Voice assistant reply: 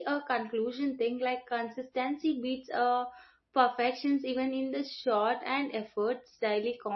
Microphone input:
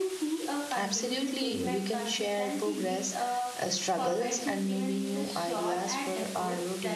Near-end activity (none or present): present